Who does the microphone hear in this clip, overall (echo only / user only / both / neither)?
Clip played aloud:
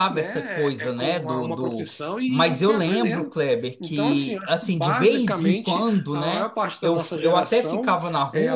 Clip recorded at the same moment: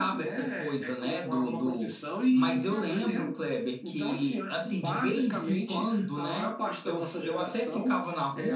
echo only